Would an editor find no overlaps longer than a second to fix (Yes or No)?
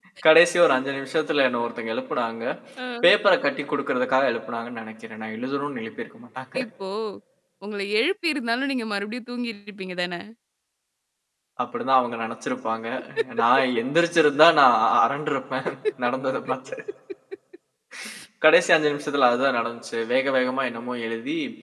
Yes